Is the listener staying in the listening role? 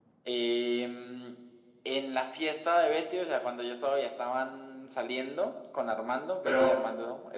Yes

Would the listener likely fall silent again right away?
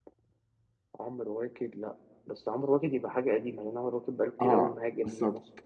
No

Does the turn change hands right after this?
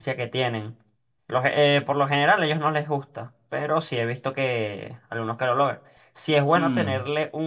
No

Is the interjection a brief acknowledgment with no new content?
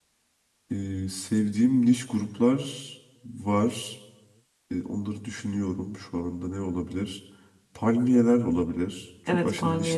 No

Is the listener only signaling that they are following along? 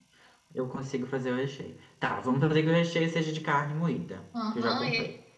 No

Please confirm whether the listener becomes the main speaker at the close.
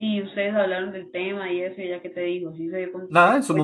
Yes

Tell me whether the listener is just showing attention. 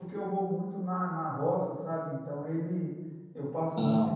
Yes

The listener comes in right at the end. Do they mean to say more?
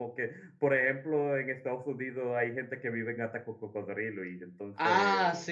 Yes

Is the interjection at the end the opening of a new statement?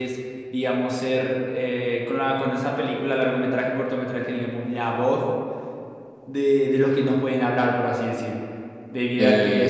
No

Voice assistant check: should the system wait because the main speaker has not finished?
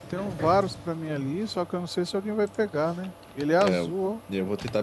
No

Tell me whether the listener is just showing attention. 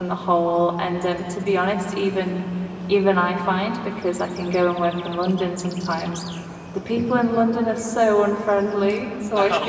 Yes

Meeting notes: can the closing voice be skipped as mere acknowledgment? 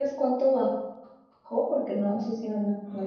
No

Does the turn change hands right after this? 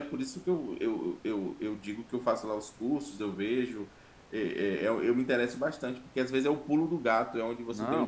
Yes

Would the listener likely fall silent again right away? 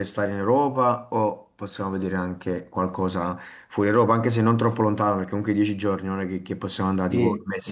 No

